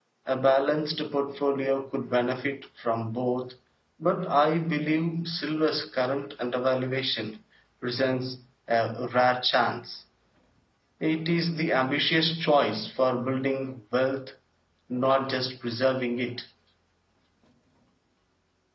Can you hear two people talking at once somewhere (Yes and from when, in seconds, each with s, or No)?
No